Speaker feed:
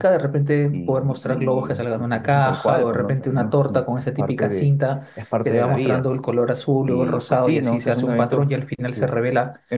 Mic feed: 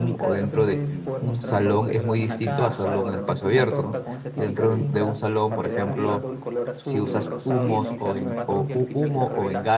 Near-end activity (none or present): present